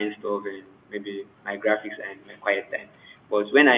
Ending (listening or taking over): listening